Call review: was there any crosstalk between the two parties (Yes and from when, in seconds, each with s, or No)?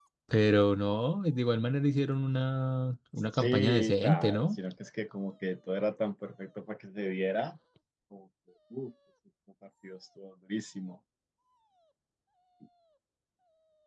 Yes, from 3.3 s